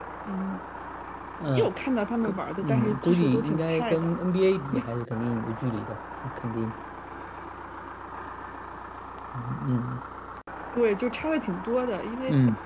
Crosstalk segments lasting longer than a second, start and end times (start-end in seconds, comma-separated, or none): 2.2-4.2